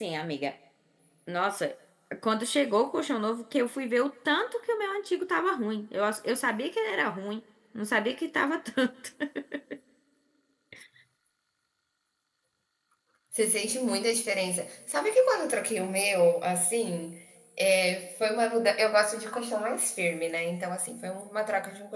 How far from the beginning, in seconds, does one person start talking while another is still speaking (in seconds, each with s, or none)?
none